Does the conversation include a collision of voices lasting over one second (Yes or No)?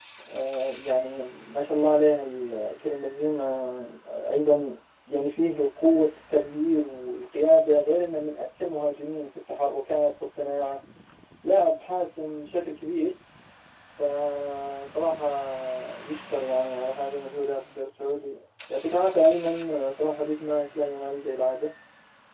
No